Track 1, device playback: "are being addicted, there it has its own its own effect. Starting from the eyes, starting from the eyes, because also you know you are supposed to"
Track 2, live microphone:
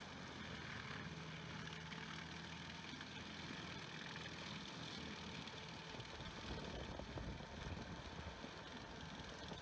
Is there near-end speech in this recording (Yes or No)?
No